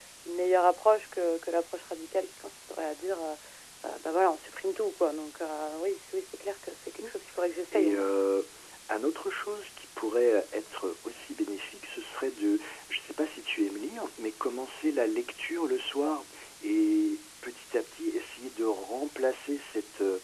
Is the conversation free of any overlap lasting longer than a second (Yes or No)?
Yes